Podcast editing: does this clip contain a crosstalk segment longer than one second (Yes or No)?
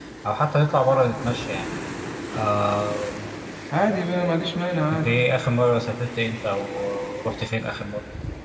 No